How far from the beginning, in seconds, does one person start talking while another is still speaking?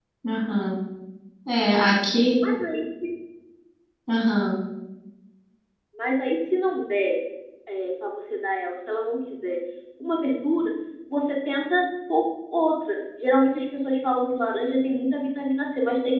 none

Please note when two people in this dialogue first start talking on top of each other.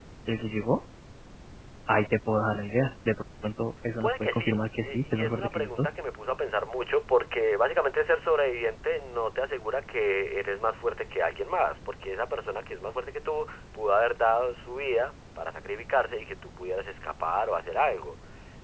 4.0 s

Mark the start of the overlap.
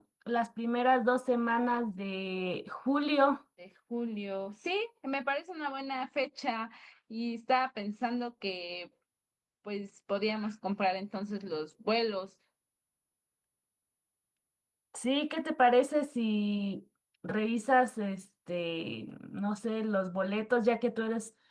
none

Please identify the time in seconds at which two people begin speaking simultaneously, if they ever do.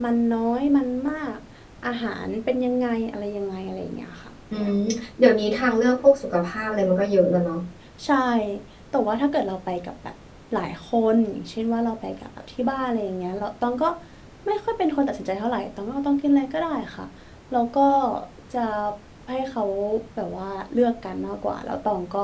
none

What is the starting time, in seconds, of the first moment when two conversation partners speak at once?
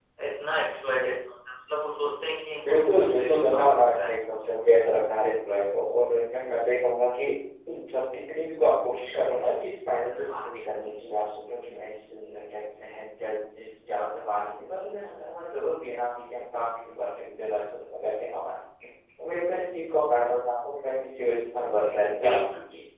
2.6 s

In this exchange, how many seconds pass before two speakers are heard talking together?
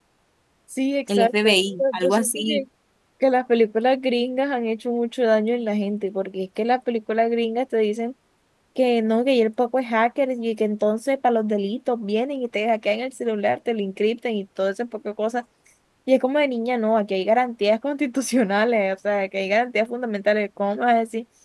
1.1 s

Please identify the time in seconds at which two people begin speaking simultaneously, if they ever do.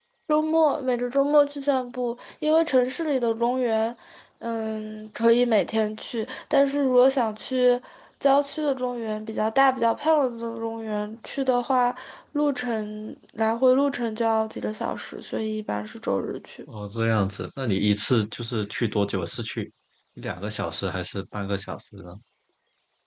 none

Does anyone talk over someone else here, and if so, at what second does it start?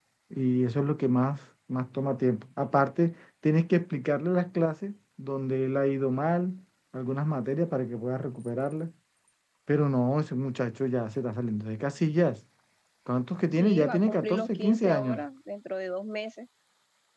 13.5 s

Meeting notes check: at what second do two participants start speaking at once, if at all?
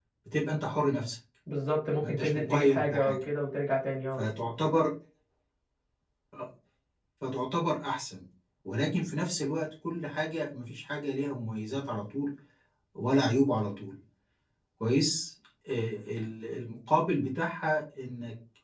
2.0 s

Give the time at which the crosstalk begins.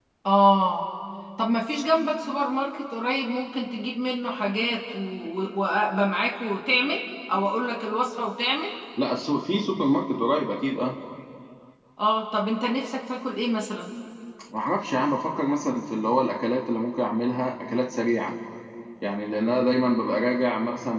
none

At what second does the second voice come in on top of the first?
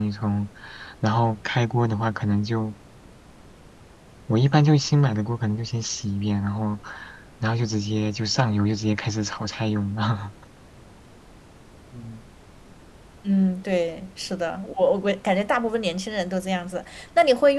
none

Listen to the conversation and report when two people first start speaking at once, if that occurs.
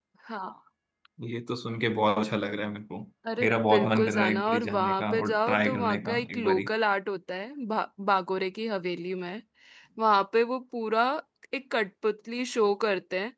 3.4 s

